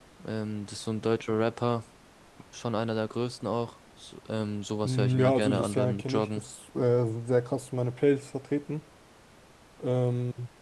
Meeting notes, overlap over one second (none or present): present